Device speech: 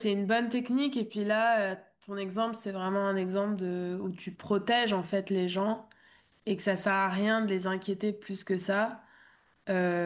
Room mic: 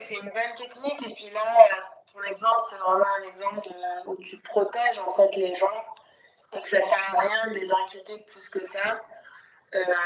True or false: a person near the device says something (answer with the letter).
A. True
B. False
B